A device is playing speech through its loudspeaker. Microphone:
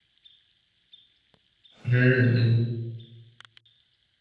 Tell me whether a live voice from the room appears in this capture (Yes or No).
Yes